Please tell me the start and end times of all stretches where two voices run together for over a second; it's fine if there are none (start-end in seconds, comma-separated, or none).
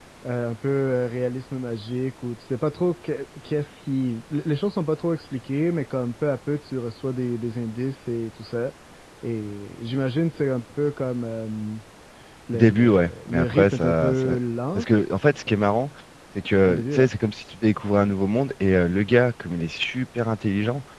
12.5-14.4